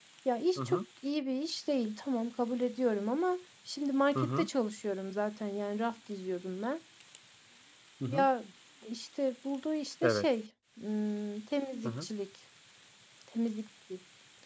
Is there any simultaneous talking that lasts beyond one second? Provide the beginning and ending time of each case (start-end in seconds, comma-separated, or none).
none